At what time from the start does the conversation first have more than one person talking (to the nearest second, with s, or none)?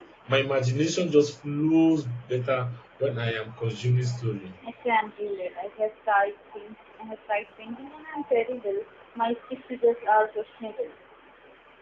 none